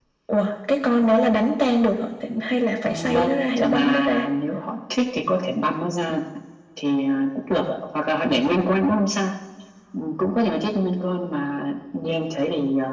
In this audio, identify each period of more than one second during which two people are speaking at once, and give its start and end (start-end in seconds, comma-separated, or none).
2.8-4.3